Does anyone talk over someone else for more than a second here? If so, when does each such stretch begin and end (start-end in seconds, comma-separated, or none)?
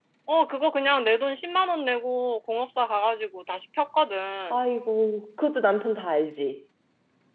none